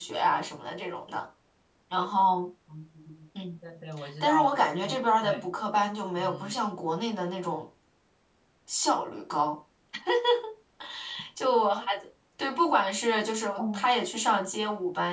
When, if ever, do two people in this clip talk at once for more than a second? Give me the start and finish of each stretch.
4.2-5.5

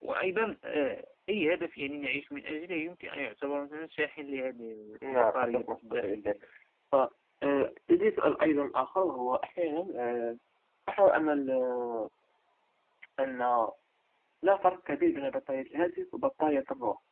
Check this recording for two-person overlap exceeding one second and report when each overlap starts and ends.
5.1-6.3

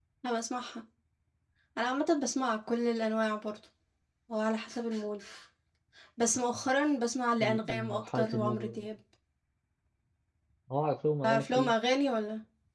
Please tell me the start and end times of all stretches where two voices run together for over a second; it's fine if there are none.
7.4-8.8

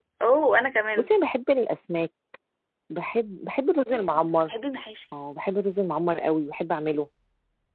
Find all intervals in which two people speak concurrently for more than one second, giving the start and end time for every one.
none

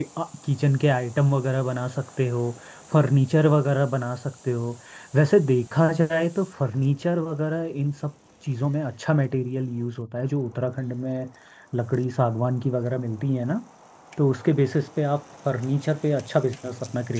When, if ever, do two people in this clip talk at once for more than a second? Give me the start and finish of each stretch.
none

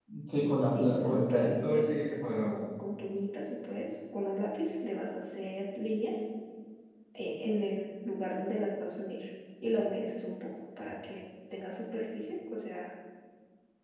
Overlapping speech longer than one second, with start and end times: 0.8-2.5

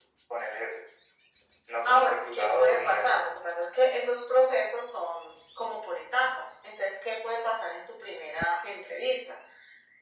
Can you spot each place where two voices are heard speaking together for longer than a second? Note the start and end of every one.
1.9-3.2

